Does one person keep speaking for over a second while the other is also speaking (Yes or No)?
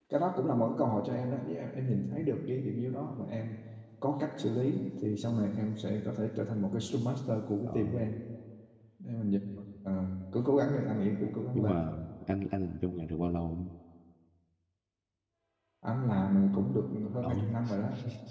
No